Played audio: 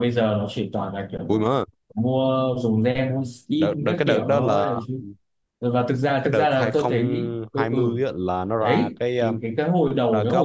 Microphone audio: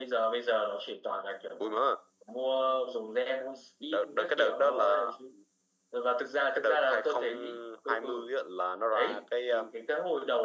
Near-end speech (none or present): none